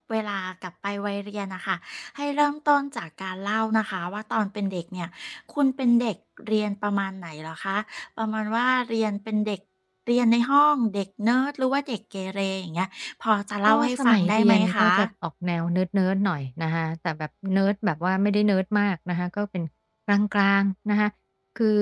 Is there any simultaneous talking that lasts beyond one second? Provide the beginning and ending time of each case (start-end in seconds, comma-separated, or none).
13.7-14.9